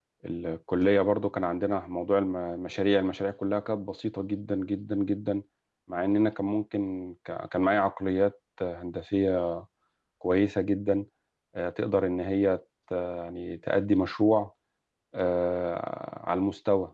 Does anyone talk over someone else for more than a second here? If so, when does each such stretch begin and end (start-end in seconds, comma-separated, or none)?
none